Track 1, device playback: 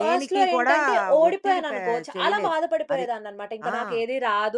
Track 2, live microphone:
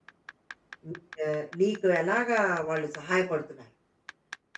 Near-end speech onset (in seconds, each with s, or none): 0.9 s